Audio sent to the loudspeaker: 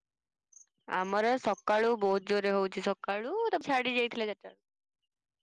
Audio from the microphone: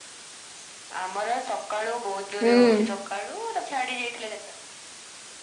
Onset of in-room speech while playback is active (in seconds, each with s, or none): 2.4 s